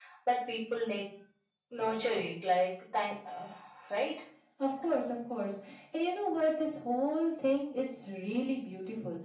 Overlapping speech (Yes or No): No